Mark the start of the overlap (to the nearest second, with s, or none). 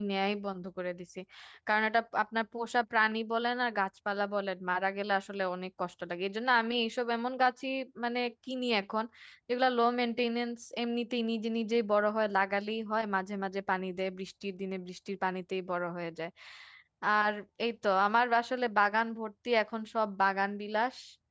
none